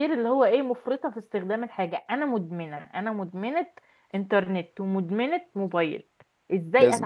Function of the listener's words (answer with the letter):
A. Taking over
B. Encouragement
B